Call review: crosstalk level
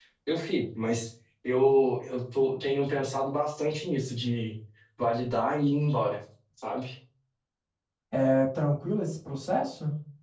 none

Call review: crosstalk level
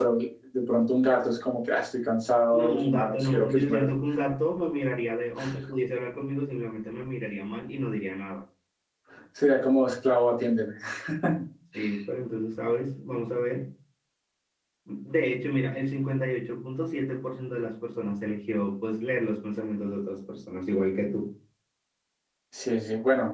present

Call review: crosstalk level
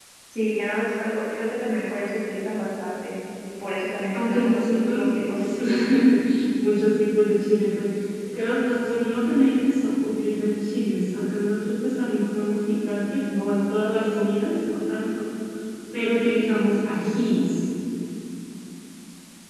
present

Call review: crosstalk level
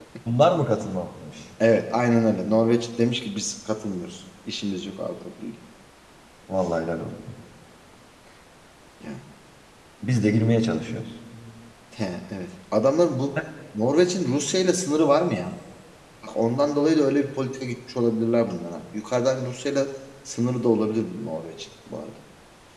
none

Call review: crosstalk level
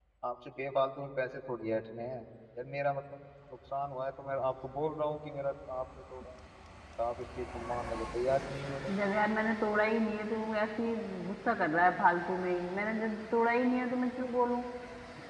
none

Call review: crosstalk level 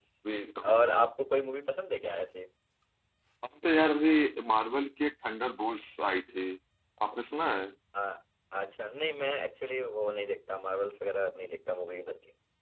none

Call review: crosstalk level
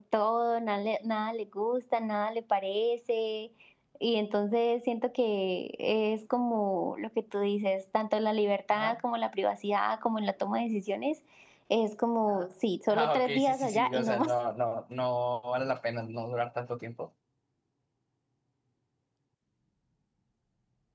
present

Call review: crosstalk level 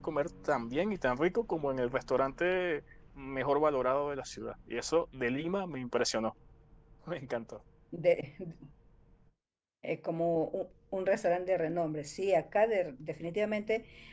none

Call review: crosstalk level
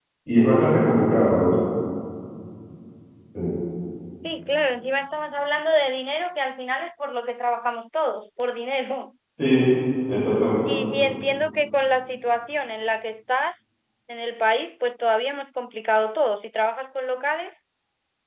none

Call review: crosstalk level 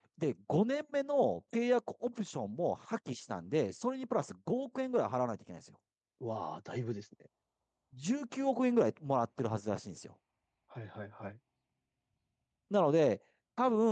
none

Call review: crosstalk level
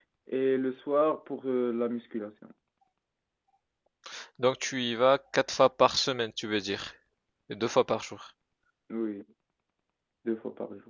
none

